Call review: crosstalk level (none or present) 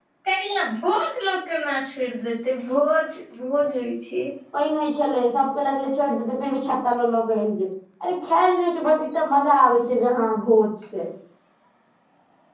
none